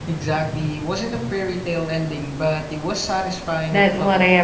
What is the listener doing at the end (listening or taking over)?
taking over